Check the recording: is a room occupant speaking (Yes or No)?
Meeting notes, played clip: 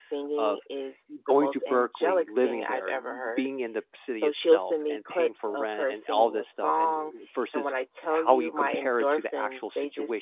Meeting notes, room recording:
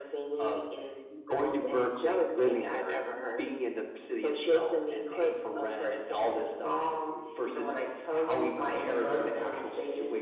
No